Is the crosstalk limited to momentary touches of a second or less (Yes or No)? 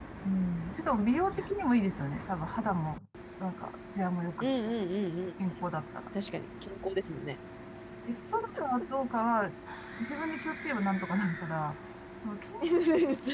Yes